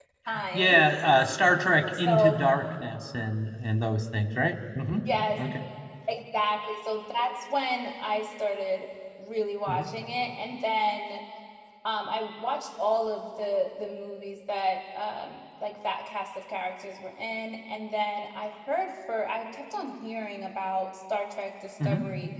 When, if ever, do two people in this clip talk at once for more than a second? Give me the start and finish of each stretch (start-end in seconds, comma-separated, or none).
none